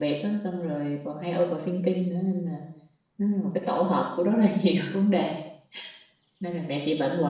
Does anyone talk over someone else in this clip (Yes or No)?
No